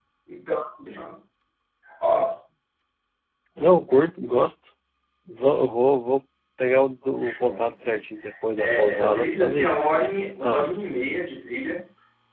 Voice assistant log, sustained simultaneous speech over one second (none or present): present